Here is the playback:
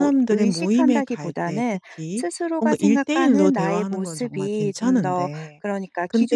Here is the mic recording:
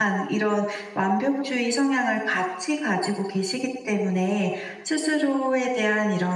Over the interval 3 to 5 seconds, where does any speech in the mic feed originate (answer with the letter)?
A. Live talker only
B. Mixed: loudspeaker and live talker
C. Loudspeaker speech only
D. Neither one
A